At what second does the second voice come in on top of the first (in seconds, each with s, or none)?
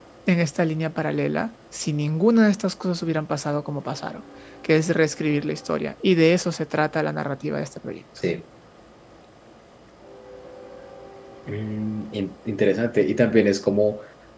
none